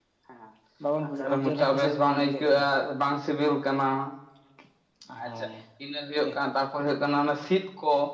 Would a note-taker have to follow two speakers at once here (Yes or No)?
Yes